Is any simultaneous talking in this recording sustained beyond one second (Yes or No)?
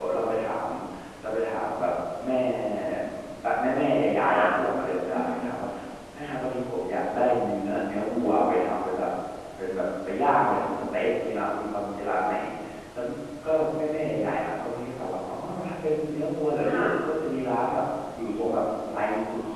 No